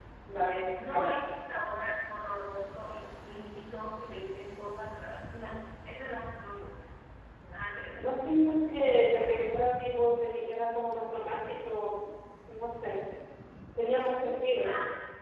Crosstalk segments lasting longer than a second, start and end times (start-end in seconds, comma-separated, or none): none